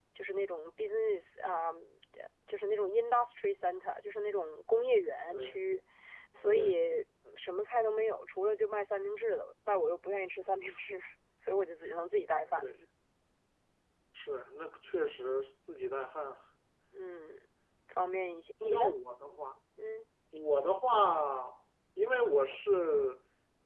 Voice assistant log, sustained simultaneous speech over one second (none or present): none